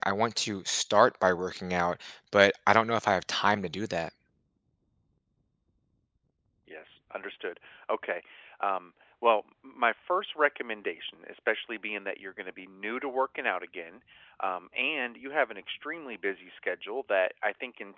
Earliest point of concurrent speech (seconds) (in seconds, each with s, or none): none